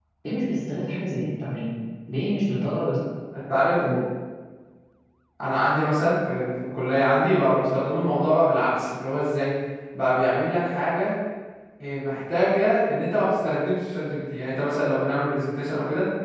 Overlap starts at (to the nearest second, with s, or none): none